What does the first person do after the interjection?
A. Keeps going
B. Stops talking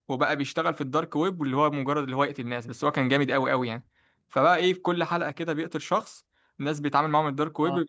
A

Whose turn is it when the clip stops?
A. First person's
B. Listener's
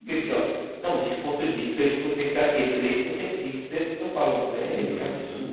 B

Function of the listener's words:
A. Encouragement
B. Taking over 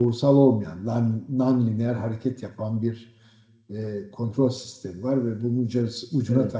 A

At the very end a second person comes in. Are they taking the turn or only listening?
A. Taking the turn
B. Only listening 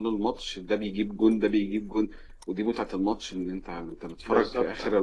B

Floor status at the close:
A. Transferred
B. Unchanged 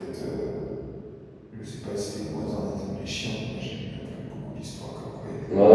A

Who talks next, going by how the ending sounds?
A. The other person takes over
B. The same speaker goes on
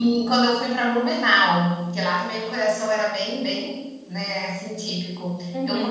B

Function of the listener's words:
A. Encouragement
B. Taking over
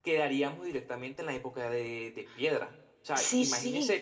A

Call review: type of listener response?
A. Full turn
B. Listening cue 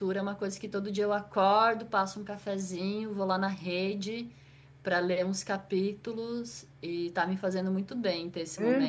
A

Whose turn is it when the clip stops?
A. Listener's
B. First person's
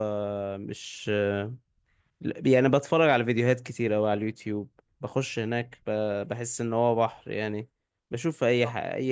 B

